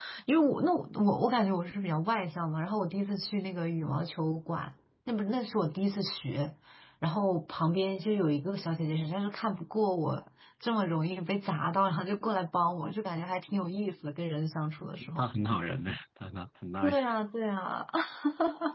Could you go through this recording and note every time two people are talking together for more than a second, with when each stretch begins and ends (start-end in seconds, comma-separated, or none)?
none